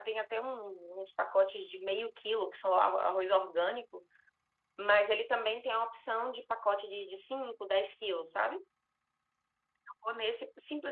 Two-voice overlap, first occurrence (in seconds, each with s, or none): none